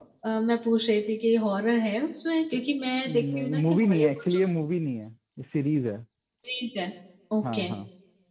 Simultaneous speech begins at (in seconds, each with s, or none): 3.1 s